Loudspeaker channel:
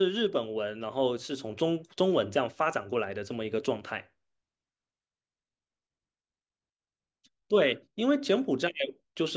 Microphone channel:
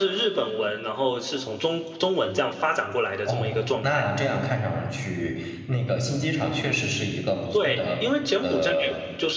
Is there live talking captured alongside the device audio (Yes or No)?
Yes